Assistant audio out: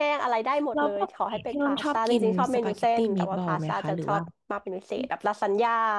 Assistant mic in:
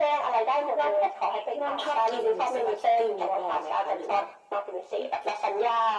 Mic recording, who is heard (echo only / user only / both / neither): echo only